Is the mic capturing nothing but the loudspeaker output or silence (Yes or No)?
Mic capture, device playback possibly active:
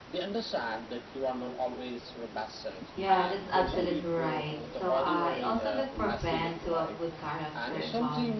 No